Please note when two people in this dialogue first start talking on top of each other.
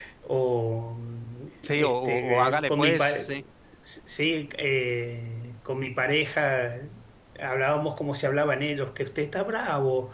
1.6 s

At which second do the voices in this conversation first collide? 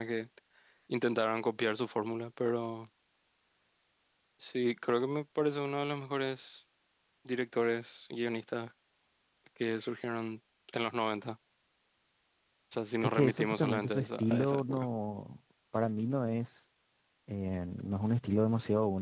13.0 s

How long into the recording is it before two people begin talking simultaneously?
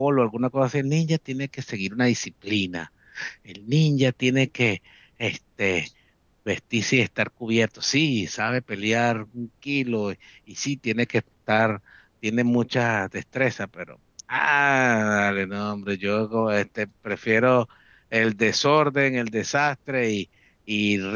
none

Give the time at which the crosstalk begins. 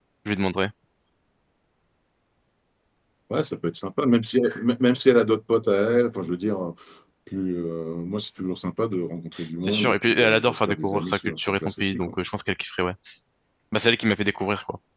9.6 s

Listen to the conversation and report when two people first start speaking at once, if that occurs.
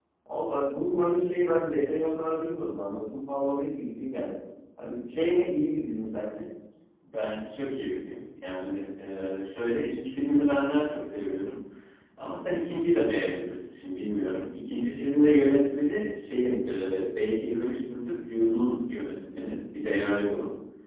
none

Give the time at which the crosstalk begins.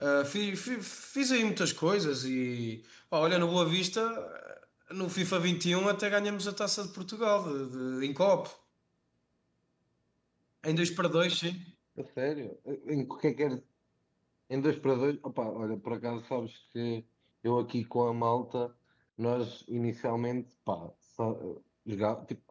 none

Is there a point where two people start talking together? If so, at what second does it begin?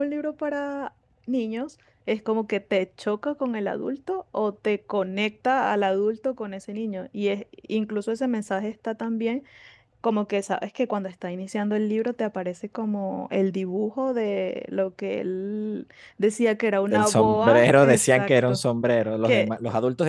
16.9 s

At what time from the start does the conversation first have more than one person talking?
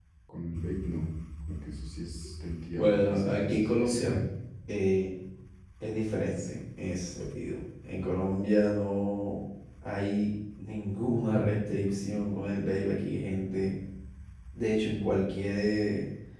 2.8 s

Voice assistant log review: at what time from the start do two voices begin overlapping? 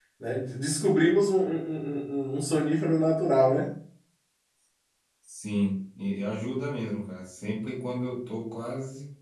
none

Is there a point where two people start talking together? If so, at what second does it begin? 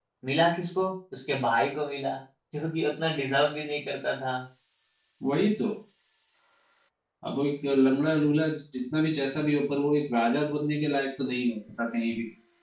none

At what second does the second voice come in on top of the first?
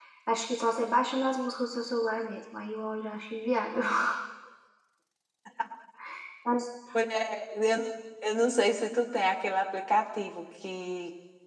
none

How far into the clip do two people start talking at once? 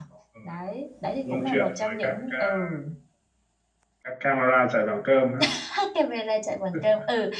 1.3 s

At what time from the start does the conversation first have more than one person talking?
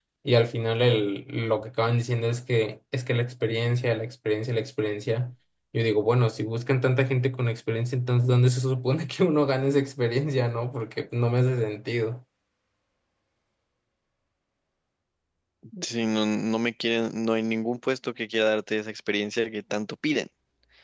none

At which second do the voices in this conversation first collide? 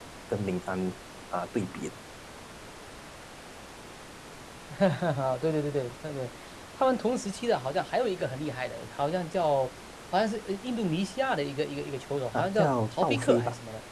12.3 s

